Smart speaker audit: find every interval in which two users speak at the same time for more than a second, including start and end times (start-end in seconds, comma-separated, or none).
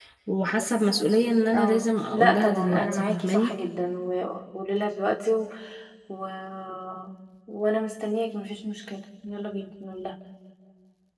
1.5-3.5